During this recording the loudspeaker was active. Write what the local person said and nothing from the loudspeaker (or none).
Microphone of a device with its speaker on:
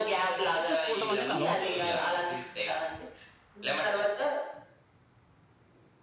ఫోటో చూడడం అనేది అలవాటుంటుంది.